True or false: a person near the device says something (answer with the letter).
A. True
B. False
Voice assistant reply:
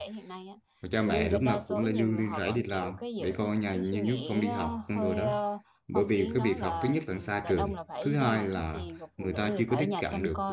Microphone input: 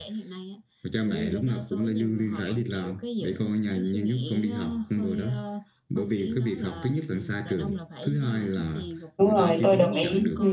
A